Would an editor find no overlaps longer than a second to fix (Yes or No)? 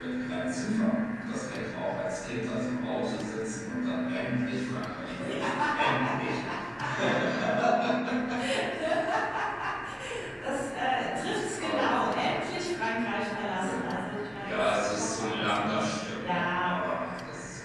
No